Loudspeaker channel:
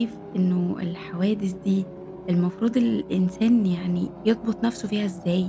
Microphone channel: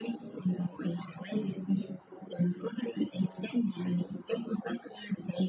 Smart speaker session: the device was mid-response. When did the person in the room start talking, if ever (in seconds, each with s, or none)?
none